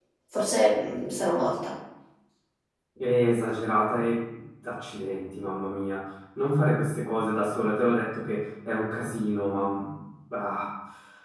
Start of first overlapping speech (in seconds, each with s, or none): none